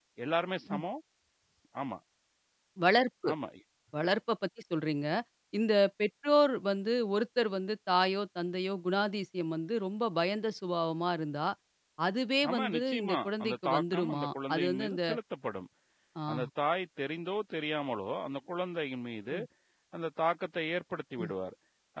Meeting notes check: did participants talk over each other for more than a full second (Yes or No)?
Yes